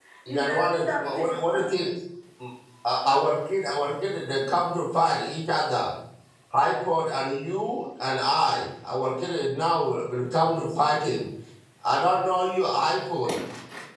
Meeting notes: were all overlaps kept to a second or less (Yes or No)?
No